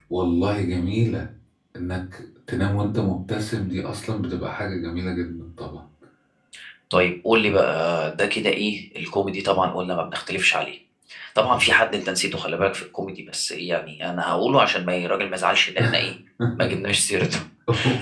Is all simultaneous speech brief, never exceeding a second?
Yes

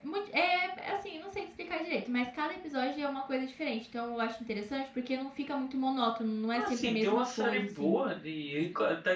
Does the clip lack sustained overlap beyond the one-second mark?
No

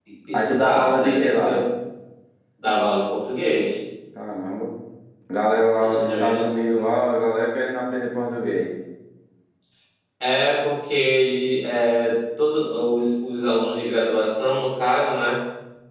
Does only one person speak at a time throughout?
No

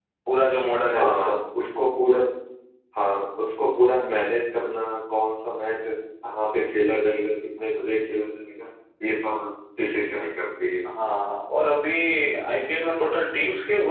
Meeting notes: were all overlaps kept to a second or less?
Yes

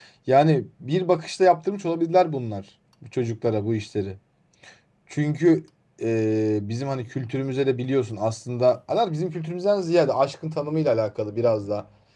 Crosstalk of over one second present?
No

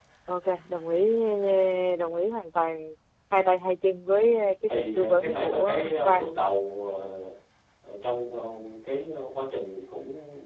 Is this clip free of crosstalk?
No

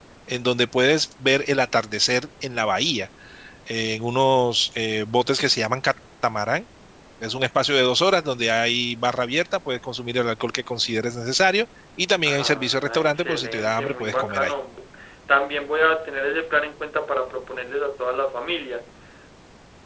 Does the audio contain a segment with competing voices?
Yes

